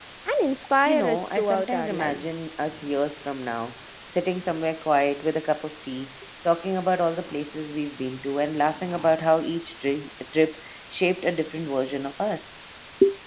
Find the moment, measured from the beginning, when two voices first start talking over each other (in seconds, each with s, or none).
0.9 s